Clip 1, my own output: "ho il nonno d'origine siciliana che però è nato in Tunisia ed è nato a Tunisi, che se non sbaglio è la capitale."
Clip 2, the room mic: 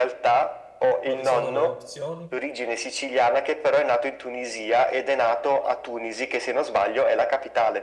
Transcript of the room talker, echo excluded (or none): Quali sono le opzioni?